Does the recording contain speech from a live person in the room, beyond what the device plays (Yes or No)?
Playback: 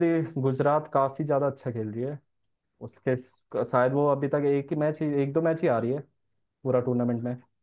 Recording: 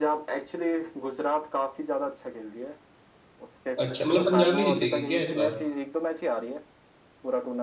Yes